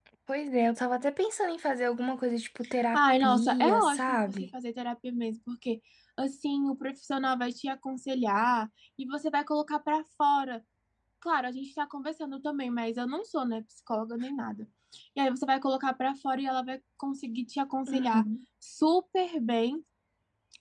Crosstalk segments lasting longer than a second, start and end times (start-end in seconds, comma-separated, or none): 2.9-4.3